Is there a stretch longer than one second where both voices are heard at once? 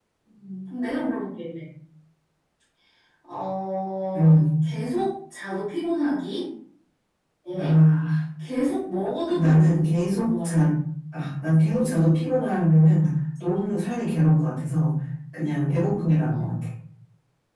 Yes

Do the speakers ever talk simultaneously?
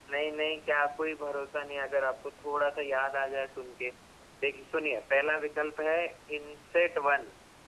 No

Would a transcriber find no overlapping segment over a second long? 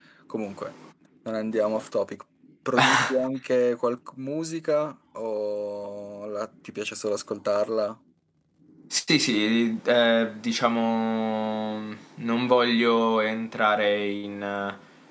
Yes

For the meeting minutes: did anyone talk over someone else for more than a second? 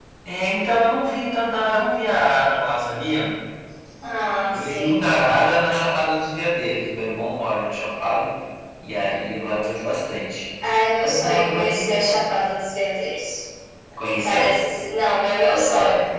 Yes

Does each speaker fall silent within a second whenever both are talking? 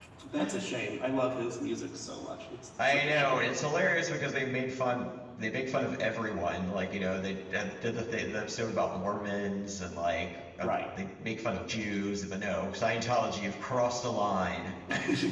Yes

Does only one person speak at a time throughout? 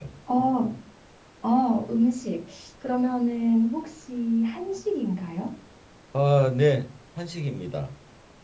Yes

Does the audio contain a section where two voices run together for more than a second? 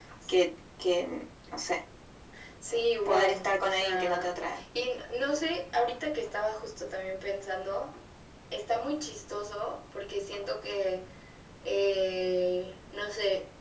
Yes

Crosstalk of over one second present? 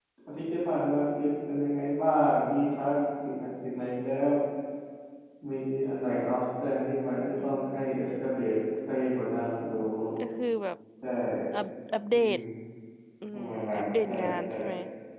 Yes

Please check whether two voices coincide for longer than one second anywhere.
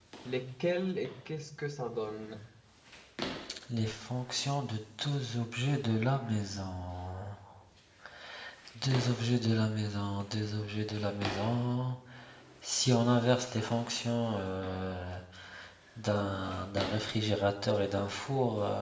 No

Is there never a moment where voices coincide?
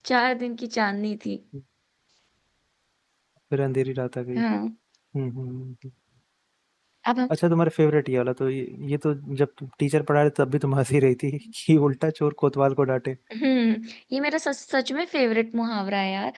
Yes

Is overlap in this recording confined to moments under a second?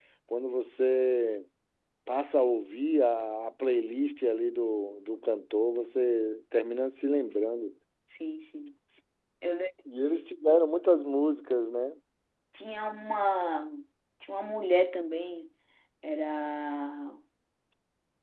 Yes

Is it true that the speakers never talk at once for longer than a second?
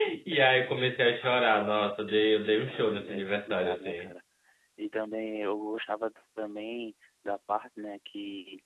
No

